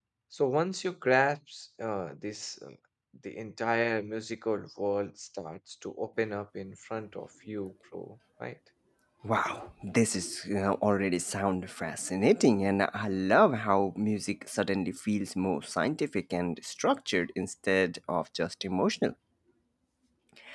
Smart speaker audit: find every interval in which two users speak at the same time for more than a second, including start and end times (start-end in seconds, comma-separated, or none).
none